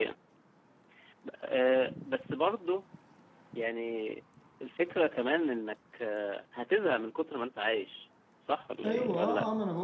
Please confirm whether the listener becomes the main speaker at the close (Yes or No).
Yes